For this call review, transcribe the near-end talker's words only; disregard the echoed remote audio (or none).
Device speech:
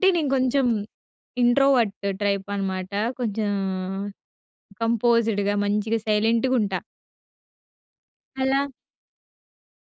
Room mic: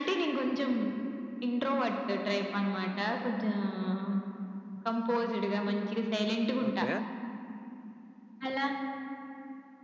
ఓకే.